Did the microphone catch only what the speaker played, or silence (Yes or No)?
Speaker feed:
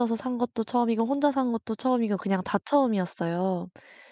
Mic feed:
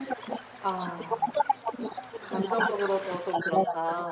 No